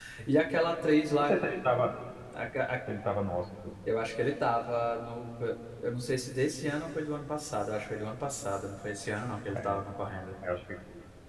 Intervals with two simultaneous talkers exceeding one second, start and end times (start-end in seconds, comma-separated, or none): none